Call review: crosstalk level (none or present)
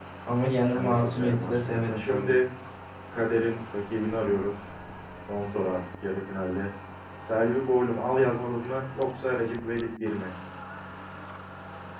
present